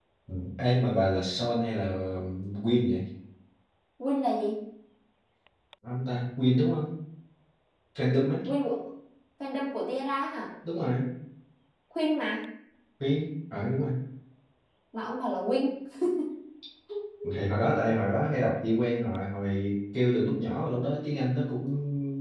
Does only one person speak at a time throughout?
Yes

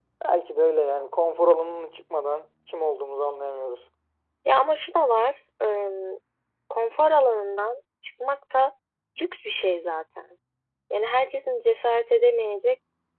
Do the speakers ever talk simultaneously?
No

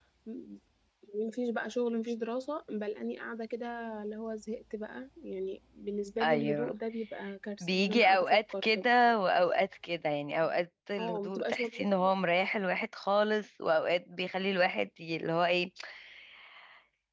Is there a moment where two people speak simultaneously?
Yes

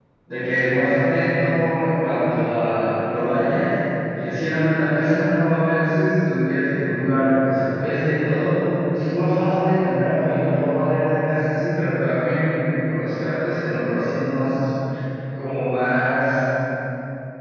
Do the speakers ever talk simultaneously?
No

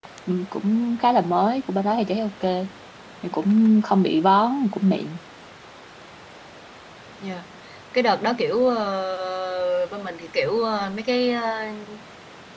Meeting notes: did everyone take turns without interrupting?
Yes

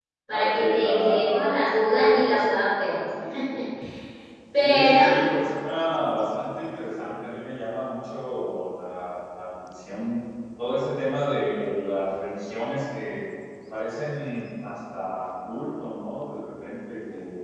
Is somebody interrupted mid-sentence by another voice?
Yes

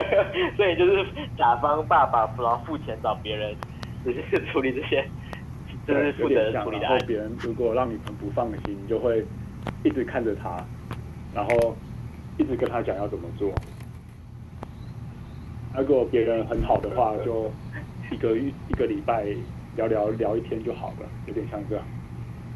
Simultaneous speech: Yes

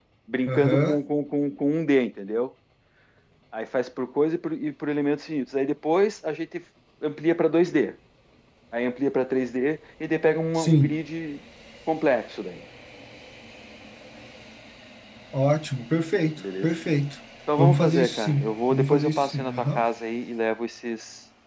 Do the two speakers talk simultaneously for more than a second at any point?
Yes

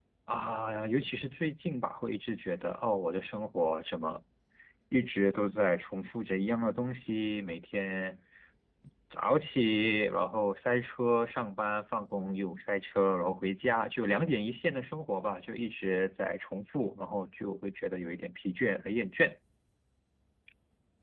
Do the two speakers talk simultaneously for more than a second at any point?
No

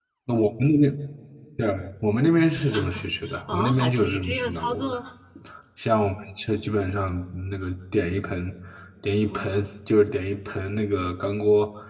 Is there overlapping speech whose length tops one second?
Yes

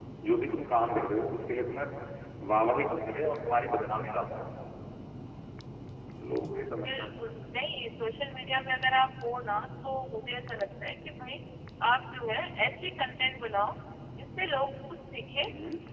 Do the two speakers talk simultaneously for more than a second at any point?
No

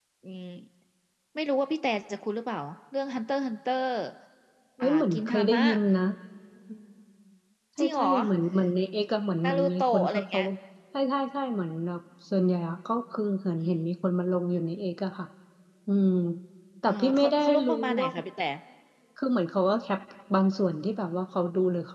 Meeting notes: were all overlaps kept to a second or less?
No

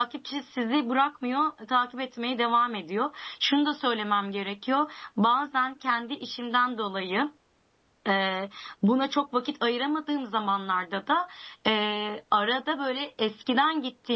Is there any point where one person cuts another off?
No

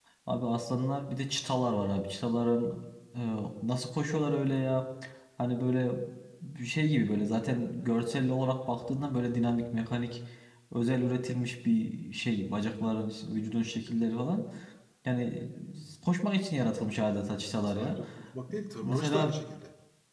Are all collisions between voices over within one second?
Yes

